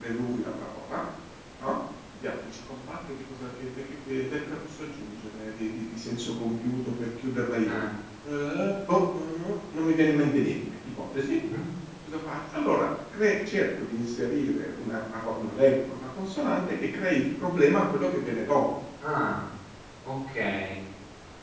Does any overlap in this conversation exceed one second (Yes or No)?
No